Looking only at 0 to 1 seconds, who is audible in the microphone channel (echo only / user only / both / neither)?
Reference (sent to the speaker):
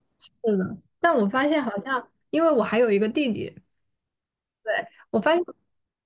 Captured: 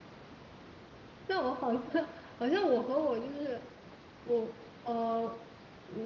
neither